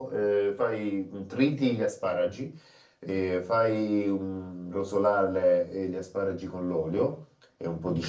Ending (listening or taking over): listening